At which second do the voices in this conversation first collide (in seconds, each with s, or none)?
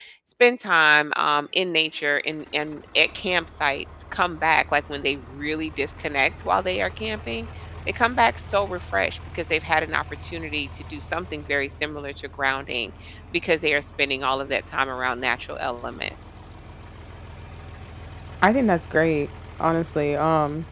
none